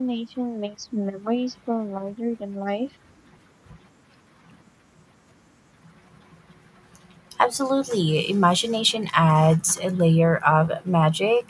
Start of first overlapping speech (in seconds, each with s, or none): none